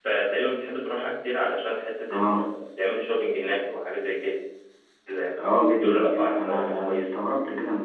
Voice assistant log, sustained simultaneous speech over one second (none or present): present